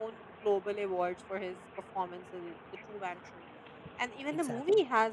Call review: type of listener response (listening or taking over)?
listening